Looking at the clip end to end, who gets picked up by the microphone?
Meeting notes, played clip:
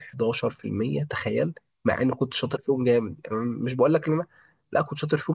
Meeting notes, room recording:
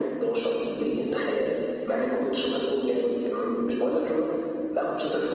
echo only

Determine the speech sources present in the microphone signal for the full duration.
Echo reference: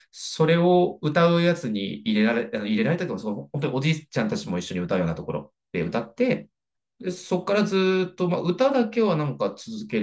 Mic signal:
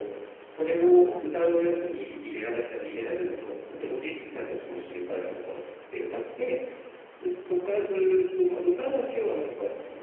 both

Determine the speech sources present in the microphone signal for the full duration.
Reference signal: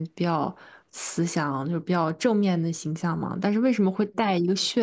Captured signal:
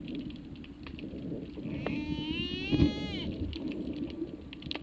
neither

